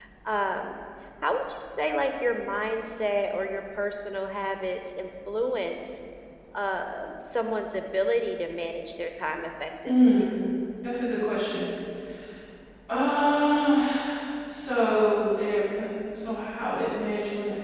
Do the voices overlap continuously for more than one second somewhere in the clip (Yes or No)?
No